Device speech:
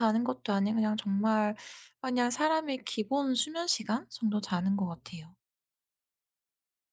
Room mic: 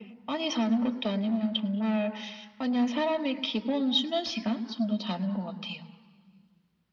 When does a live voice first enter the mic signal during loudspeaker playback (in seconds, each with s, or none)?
none